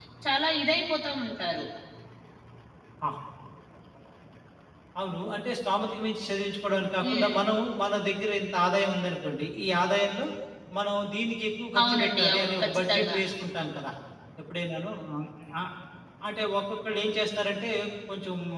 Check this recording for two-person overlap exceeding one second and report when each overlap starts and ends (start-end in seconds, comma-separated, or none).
11.8-13.2